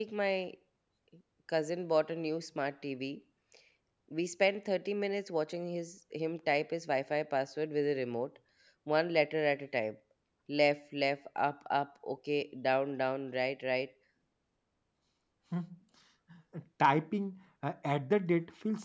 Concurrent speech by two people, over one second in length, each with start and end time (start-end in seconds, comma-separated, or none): none